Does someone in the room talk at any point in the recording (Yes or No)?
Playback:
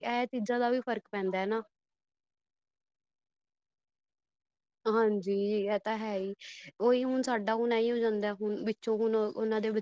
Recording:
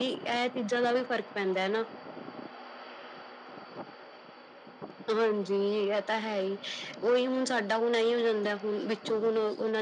No